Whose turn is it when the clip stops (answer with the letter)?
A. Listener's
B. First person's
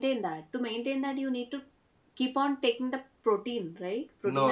A